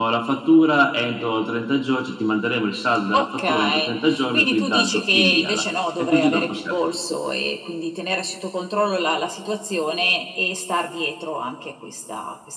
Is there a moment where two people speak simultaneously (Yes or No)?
Yes